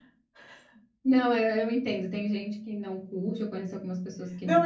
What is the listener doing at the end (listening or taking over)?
taking over